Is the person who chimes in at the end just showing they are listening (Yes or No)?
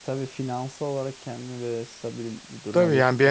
No